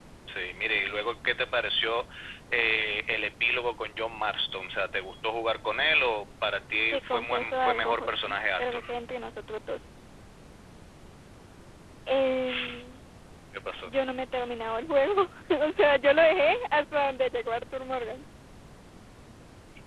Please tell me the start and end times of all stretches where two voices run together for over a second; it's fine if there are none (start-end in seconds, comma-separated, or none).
6.9-8.8